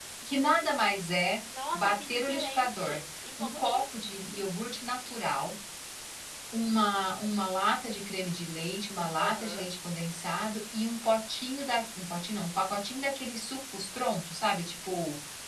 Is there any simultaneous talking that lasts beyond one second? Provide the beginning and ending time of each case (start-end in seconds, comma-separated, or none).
1.7-3.0